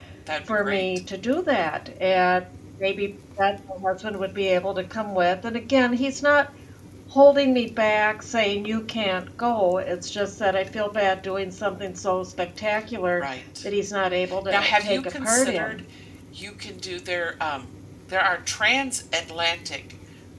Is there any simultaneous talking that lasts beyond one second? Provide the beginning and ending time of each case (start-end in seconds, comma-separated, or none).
14.5-15.8